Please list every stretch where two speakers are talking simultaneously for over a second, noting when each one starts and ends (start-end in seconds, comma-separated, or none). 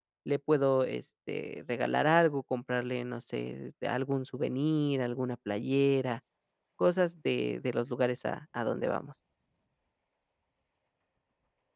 none